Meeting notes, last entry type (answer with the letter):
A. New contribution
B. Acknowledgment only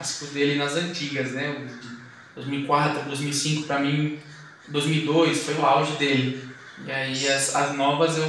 B